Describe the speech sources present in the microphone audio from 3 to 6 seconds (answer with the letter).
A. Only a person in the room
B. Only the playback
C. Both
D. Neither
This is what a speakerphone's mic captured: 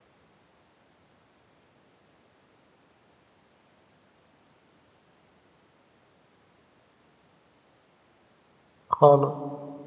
D